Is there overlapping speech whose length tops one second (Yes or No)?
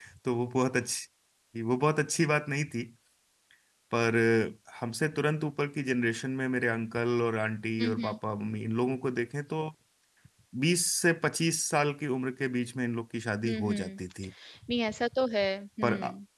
No